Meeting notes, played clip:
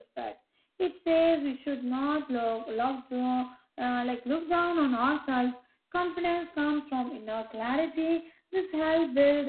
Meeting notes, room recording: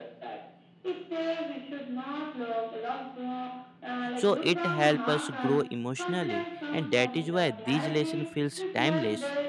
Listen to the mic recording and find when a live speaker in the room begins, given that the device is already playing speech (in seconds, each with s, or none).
4.1 s